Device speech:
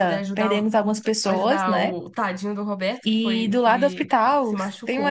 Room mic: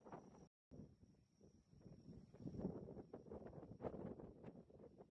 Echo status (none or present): none